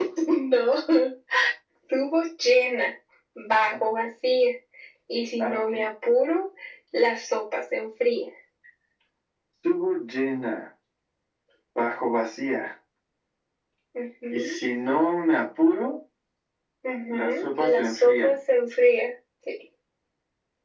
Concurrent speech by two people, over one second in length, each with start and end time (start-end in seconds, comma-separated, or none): 17.1-18.3